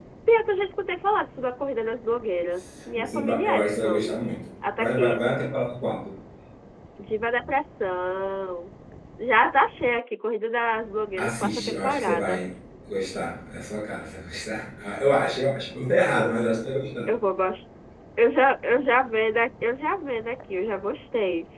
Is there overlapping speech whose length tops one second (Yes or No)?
Yes